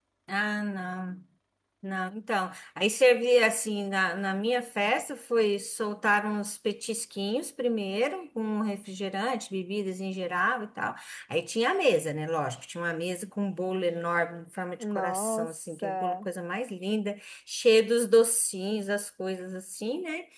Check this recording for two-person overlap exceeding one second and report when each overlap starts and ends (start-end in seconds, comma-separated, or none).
14.8-16.3